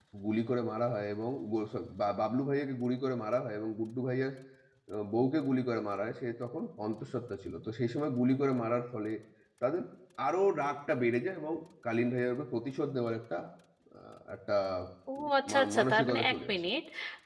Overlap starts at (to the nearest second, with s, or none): 15 s